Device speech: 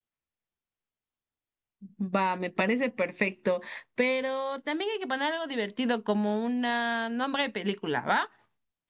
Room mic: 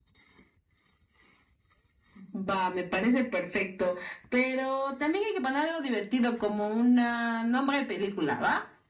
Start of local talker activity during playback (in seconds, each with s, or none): none